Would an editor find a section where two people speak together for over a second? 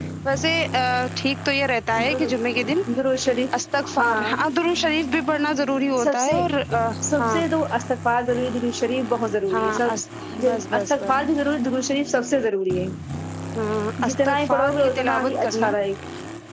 Yes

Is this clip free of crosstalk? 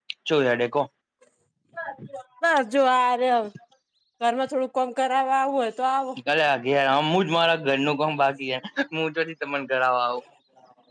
Yes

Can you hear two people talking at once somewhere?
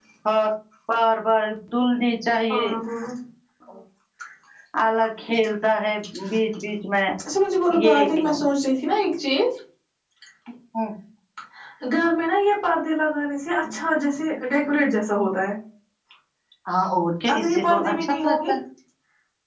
Yes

